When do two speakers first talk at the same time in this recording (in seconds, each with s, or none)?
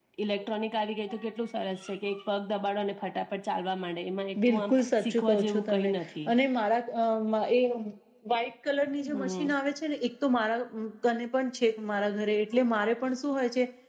4.4 s